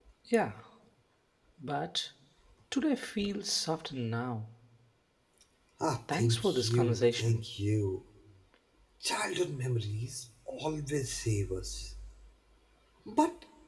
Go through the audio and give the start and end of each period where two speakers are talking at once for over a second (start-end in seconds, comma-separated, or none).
6.1-7.4